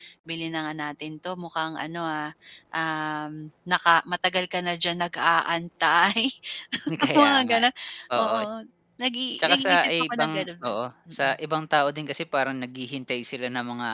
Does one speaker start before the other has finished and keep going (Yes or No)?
Yes